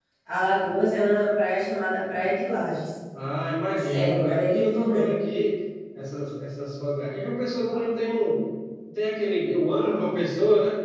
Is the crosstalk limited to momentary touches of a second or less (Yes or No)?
No